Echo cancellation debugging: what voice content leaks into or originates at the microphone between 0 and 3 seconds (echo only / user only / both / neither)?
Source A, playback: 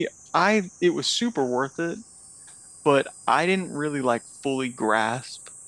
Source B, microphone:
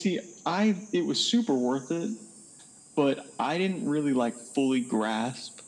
echo only